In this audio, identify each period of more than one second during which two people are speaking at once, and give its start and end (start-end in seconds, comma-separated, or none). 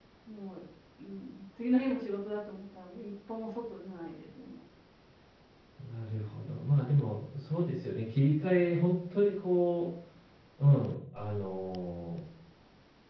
none